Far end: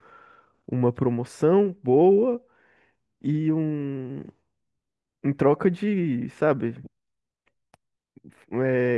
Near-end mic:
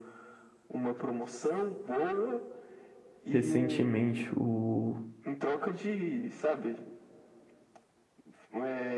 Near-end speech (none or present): present